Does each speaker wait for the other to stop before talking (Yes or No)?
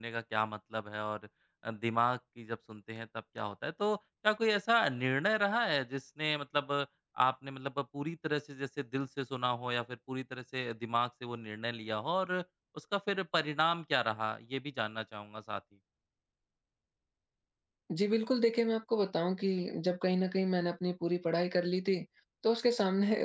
Yes